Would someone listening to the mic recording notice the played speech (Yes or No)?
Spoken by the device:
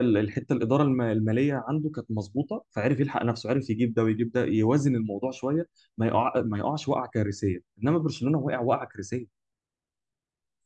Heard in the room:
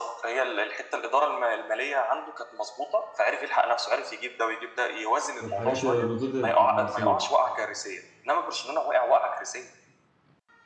Yes